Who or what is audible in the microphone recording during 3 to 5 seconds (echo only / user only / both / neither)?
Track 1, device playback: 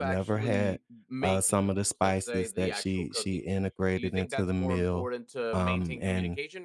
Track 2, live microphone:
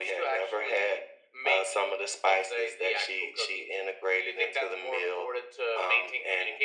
echo only